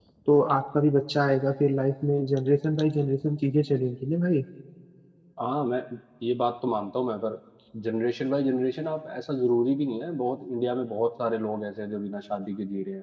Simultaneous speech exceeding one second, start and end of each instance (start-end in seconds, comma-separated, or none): none